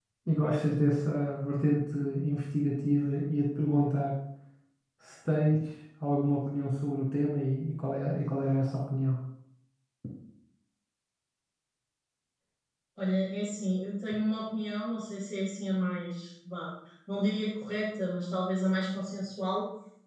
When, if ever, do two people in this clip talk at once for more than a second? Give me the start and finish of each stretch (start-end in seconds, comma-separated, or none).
none